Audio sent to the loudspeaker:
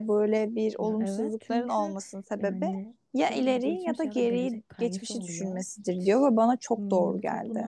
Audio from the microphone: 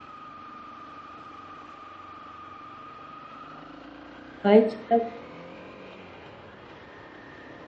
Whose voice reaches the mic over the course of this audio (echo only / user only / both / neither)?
user only